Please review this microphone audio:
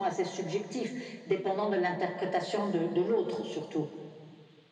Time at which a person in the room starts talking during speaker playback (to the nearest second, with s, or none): none